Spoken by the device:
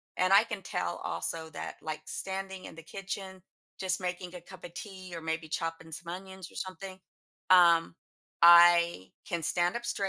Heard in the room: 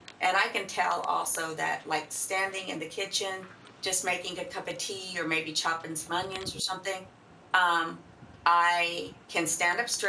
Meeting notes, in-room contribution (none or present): none